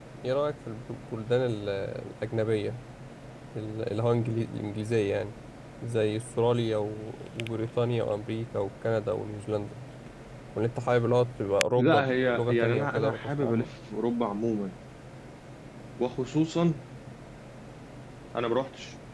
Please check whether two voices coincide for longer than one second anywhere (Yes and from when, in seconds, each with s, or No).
Yes, from 11.8 s